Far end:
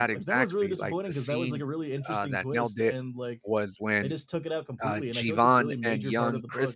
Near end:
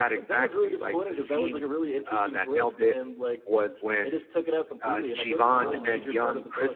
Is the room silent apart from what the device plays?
No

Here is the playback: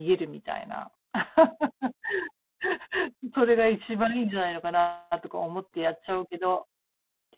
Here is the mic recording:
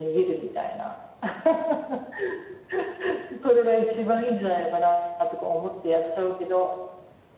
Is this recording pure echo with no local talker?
Yes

